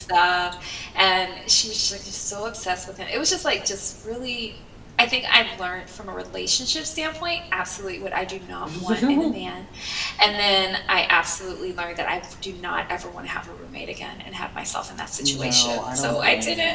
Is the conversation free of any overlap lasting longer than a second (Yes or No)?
No